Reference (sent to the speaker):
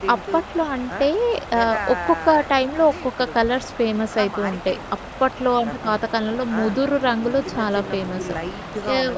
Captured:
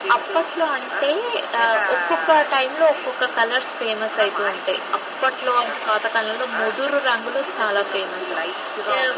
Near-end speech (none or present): none